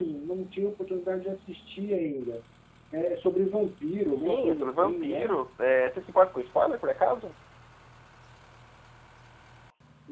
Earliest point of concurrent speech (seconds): 4.1 s

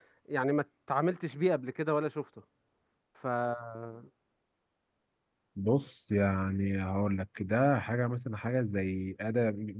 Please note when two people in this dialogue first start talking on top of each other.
none

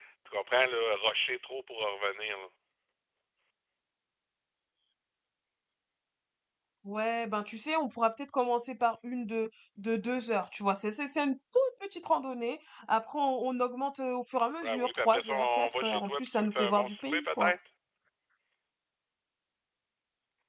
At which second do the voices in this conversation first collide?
14.6 s

